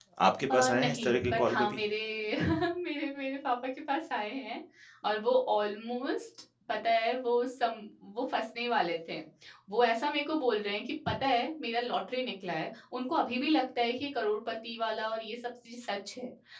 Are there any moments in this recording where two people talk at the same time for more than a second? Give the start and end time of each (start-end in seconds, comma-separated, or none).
0.5-1.8